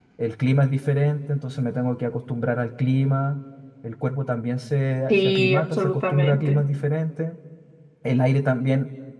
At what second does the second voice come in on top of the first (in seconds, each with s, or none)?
5.1 s